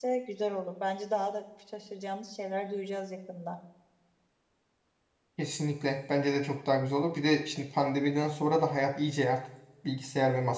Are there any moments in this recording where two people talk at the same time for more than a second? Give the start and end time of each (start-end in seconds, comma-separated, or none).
none